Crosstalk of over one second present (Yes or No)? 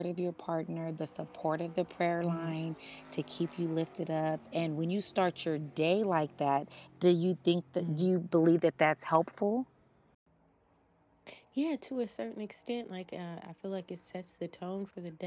No